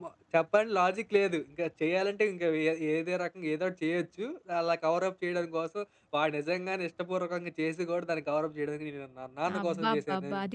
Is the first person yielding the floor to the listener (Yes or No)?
Yes